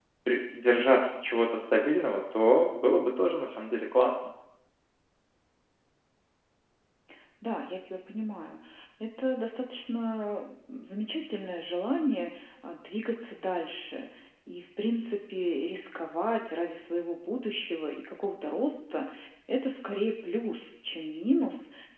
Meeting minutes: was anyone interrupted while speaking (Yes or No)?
No